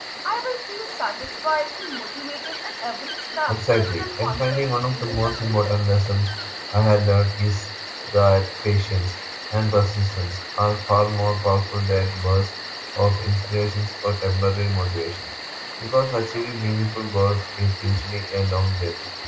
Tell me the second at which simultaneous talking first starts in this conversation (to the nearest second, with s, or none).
3 s